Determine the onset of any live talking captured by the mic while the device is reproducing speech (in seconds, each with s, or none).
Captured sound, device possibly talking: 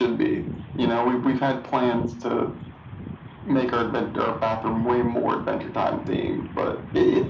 none